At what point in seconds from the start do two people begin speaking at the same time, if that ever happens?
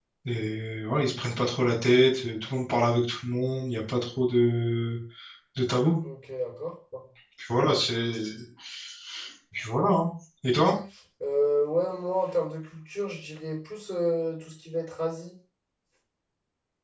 none

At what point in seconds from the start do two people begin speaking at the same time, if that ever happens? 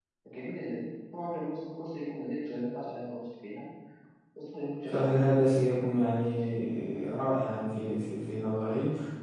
4.9 s

